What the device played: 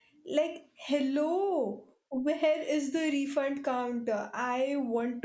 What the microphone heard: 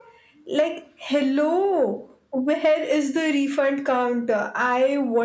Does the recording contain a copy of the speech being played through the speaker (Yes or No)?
Yes